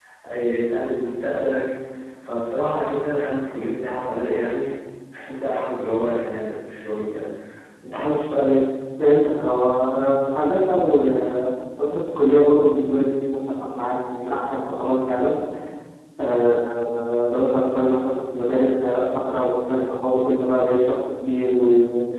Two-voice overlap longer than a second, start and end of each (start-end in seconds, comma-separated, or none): none